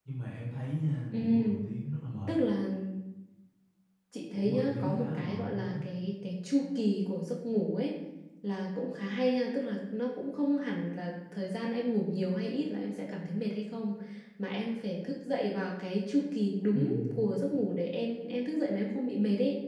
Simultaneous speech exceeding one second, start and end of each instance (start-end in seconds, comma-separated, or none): 4.3-5.8